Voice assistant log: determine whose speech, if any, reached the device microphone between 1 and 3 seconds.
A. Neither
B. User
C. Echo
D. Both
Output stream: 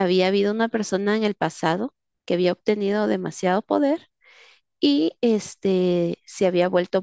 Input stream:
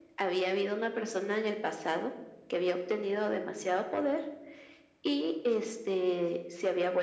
C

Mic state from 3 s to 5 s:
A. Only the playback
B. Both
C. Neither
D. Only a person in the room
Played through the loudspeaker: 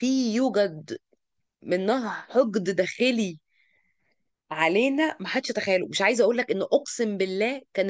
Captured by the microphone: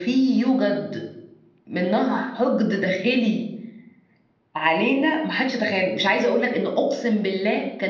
A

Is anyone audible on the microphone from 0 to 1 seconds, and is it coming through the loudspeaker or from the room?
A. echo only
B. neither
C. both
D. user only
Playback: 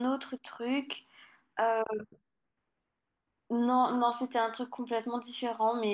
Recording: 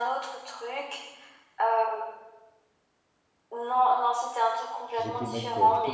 A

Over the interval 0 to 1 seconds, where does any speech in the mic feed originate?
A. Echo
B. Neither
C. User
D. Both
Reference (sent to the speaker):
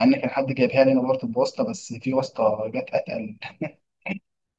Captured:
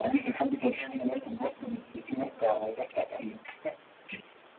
A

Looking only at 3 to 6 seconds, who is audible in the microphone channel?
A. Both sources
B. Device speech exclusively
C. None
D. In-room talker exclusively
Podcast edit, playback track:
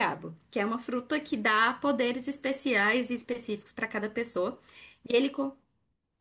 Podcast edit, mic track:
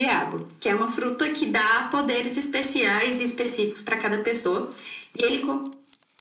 B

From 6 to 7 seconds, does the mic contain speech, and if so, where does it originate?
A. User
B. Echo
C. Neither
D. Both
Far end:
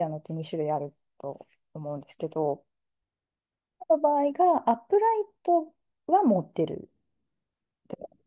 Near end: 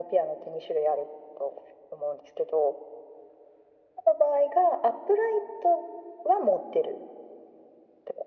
B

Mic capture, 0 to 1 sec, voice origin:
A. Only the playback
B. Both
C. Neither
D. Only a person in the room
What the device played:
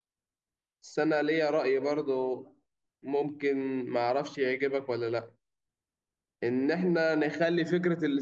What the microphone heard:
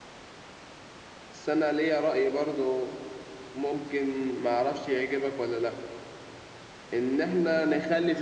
C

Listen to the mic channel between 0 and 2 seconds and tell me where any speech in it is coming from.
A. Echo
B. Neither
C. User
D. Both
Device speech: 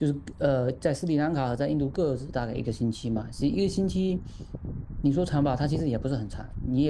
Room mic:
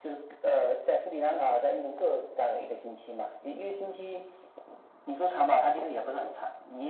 A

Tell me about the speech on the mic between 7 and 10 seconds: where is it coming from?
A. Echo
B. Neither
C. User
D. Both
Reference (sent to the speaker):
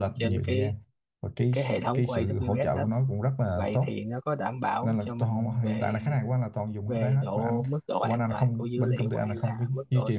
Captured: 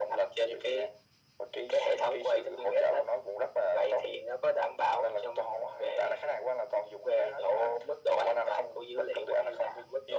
A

